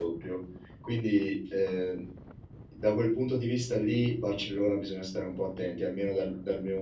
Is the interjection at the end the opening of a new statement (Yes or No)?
No